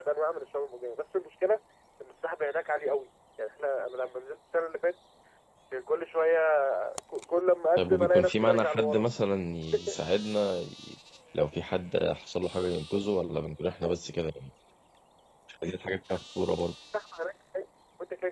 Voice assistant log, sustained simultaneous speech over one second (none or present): present